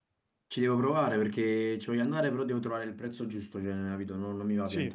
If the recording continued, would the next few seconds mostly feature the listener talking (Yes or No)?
Yes